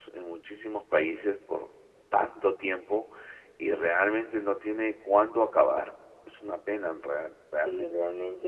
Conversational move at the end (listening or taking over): taking over